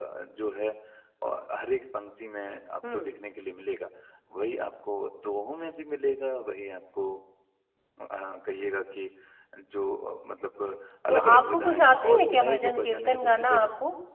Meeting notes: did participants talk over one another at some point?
Yes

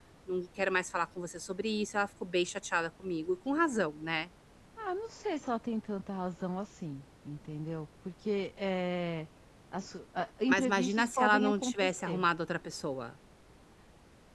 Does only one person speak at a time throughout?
No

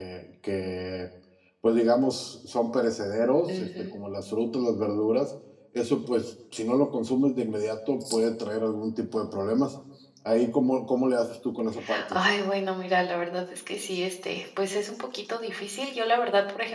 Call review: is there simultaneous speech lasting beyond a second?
No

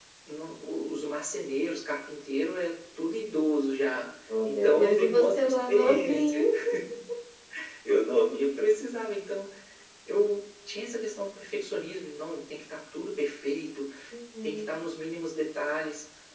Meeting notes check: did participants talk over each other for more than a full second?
Yes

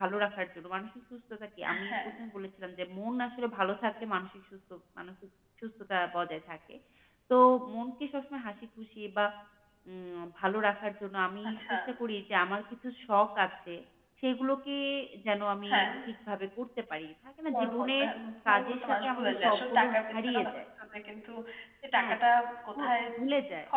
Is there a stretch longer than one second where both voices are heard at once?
Yes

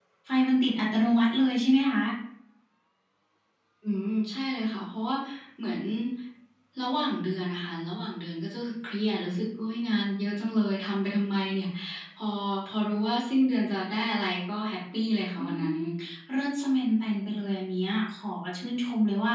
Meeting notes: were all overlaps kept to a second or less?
Yes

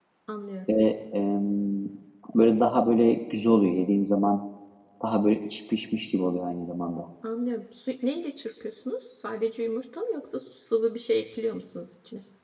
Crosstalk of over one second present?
No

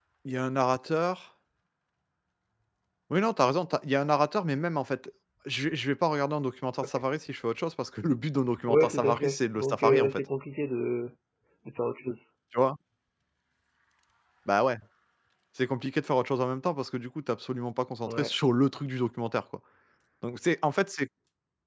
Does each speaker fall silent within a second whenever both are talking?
No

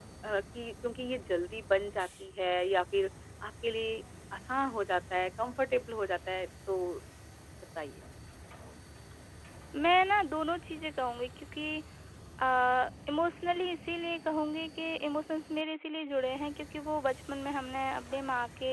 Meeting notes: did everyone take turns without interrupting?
Yes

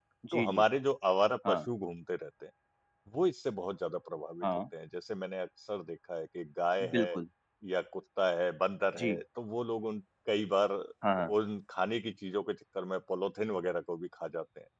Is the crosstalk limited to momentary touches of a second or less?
Yes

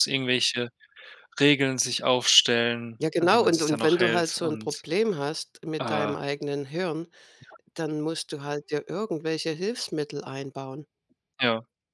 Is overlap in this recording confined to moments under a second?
No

